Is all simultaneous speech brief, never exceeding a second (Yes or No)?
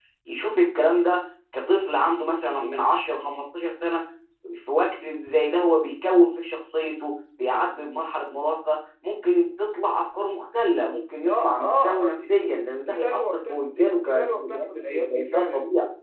No